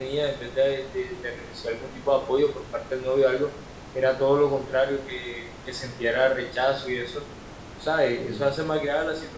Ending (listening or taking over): listening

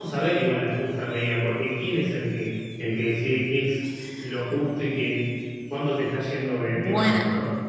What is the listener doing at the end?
taking over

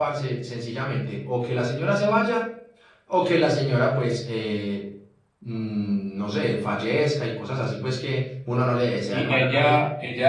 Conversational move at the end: taking over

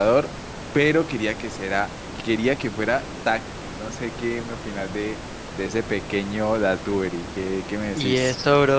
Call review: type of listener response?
taking over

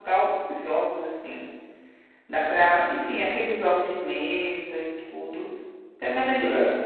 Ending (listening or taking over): listening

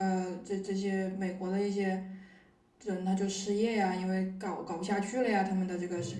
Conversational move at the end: taking over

